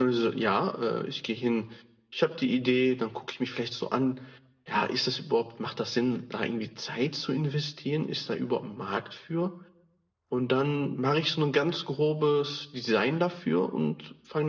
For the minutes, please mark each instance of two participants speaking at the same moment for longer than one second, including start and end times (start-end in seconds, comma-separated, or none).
none